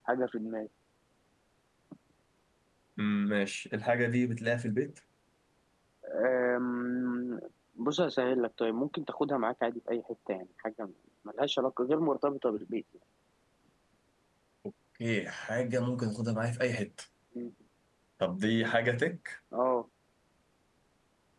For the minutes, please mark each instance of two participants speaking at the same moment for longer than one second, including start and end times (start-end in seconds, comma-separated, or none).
none